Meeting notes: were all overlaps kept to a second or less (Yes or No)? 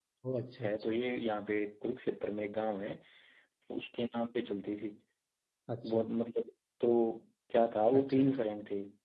Yes